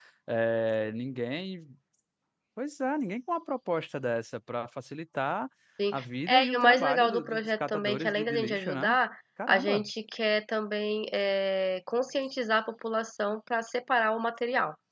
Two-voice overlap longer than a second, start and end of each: 5.9-8.9

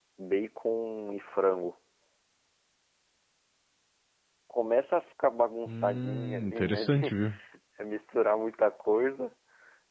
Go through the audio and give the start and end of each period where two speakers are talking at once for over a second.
5.7-7.1

